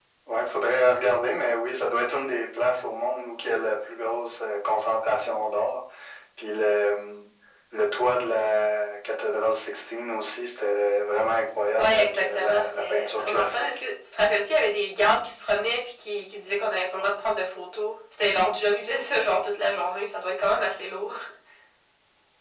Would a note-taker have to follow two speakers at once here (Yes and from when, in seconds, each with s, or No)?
Yes, from 11.8 s